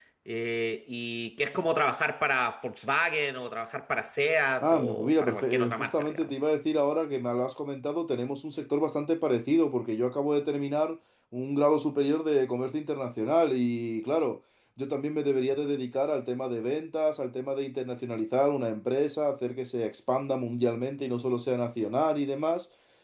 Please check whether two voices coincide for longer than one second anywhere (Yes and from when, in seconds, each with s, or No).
Yes, from 4.6 s